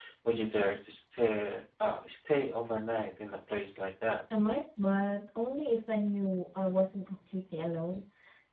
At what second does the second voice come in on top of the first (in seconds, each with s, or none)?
none